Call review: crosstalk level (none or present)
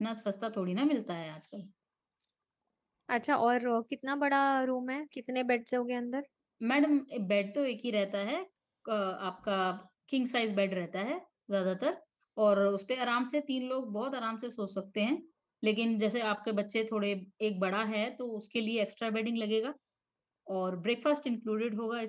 none